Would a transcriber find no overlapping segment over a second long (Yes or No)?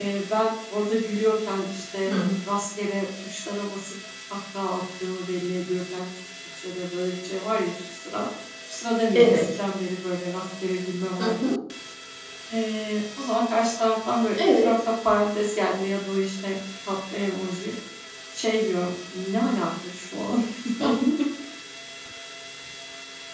Yes